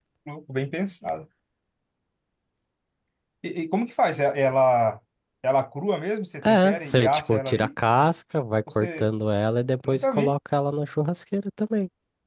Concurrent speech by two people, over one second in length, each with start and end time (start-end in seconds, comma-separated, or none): 6.4-7.7